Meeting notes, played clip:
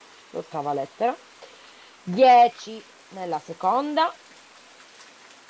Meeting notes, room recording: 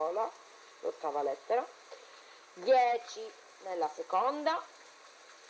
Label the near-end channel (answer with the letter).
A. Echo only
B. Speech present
A